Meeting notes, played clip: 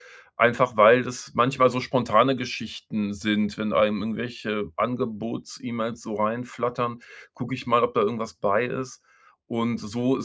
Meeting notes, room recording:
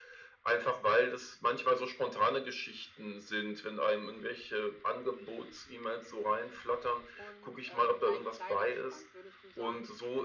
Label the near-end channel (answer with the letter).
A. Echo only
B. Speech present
B